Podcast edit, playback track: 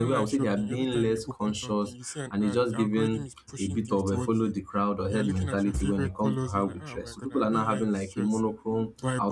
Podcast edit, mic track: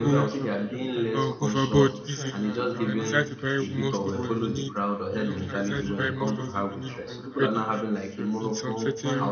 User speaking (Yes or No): Yes